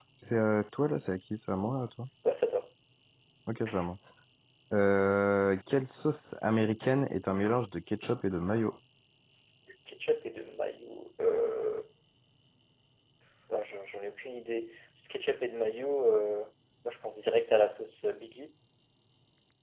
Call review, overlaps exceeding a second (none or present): none